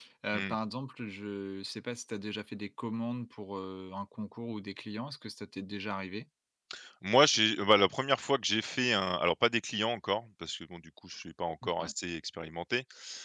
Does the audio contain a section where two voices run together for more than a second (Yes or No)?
No